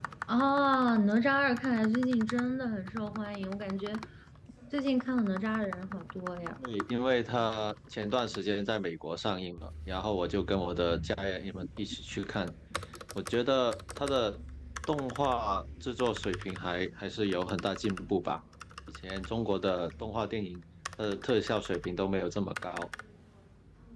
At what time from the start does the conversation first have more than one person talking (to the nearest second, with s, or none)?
none